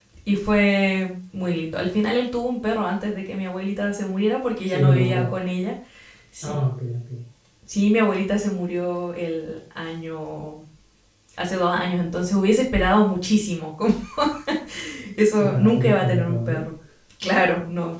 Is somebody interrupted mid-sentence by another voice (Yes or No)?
Yes